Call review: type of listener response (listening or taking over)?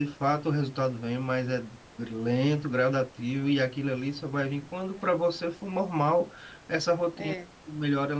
listening